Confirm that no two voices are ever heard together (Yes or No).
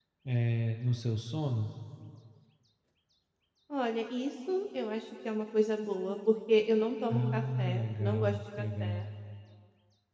No